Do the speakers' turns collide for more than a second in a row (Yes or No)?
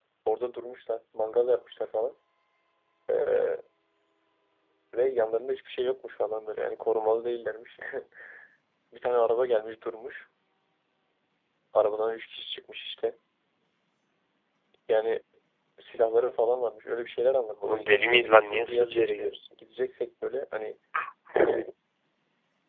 Yes